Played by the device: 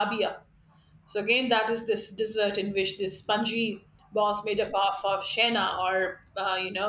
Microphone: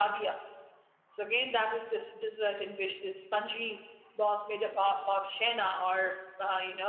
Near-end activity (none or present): none